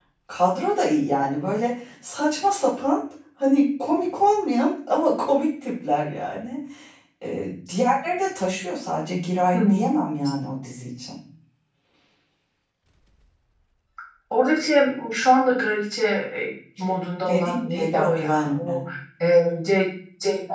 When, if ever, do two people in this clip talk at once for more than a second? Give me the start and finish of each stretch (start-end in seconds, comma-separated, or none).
17.3-18.8